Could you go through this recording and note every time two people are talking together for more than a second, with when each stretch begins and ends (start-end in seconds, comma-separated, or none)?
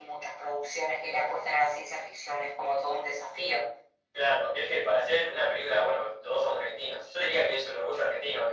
none